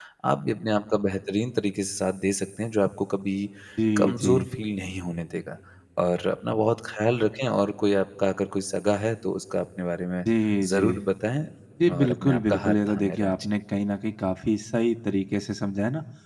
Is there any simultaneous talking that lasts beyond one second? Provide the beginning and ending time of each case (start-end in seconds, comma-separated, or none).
12.0-13.4